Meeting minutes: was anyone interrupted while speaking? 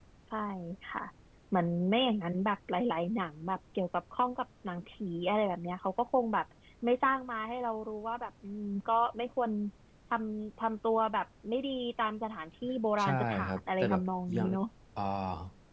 Yes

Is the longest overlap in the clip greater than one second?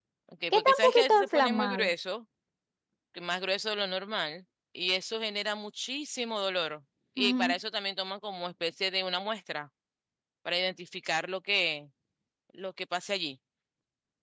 Yes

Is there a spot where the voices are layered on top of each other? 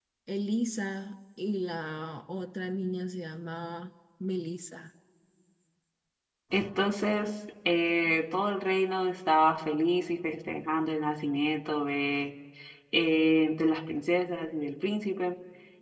No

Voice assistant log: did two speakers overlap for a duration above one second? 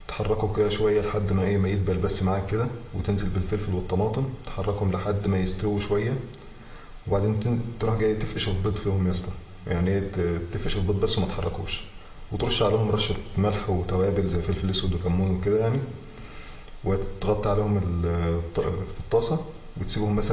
No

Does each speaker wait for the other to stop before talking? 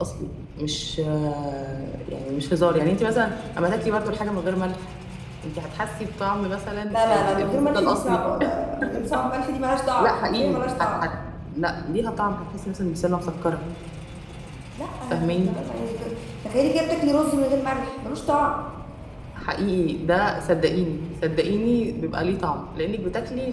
No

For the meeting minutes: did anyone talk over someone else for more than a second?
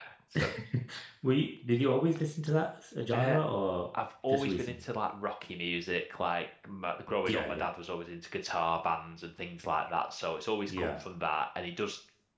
No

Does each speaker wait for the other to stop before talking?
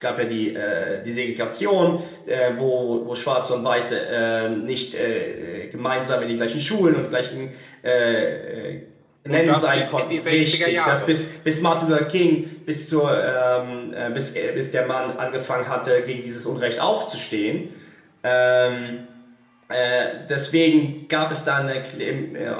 No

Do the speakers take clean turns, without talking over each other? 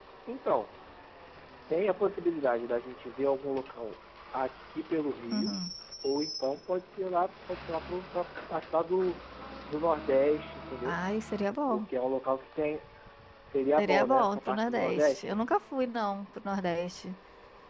No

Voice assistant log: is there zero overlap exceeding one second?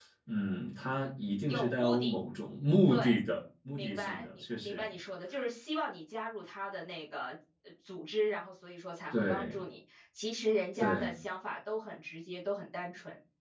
No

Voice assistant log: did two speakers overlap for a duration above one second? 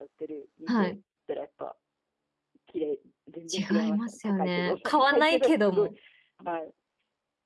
Yes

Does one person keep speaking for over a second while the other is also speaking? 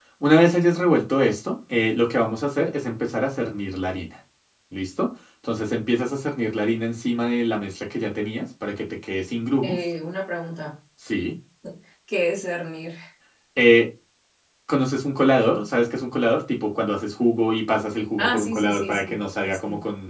Yes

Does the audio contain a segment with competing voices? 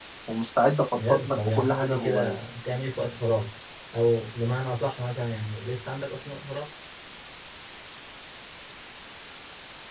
Yes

